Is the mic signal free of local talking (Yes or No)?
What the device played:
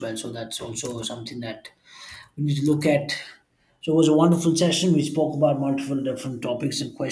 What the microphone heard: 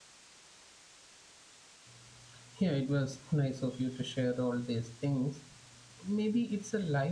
No